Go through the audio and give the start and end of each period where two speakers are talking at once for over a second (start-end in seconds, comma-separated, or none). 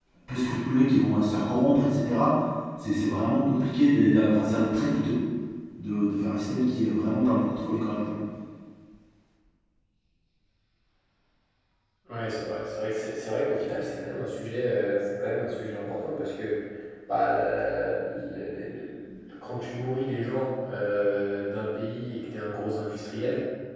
none